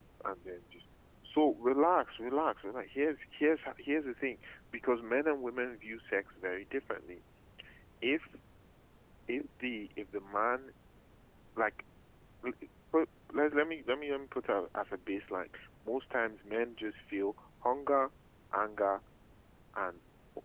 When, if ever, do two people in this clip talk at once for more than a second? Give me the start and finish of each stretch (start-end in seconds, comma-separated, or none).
none